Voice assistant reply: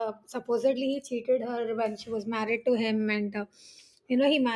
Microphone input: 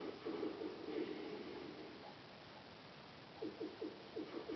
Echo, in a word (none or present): none